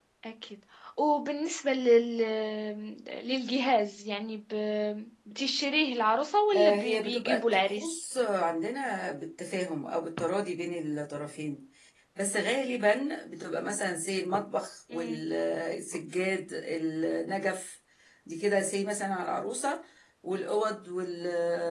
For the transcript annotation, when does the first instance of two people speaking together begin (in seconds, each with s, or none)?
6.5 s